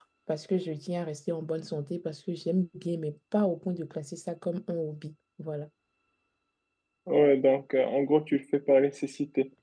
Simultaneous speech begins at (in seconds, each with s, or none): none